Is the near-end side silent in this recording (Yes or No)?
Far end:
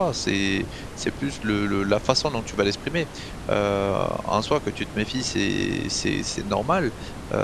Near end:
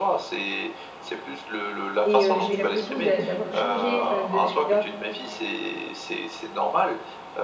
No